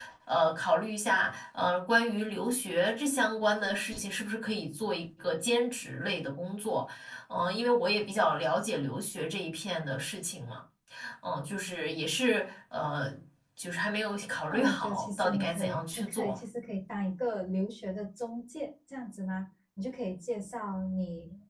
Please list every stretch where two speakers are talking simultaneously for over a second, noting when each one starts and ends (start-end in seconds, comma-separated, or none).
14.5-16.4